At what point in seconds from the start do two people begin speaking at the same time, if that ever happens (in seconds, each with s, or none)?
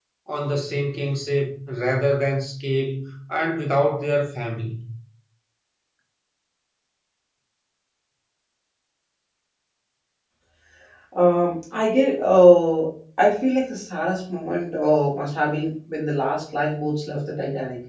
none